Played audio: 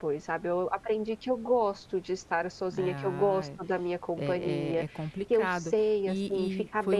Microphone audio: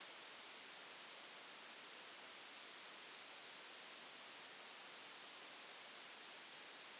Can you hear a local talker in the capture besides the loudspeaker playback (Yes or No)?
No